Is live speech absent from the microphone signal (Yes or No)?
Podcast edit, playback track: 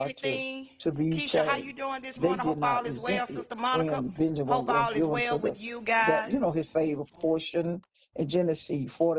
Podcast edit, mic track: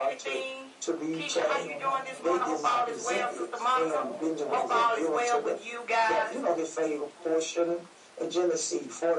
No